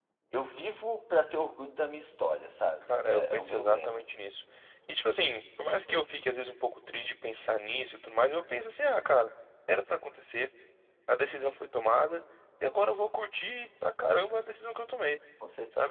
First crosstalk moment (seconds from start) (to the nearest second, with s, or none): 3 s